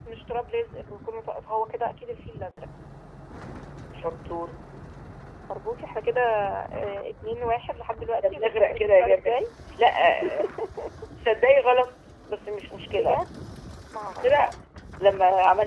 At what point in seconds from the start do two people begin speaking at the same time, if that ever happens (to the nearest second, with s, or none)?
8 s